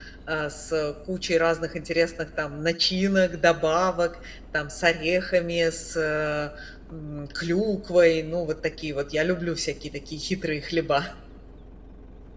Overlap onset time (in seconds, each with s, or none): none